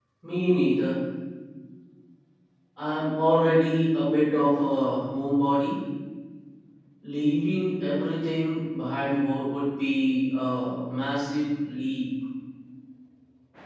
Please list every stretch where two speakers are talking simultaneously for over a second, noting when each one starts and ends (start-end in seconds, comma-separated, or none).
none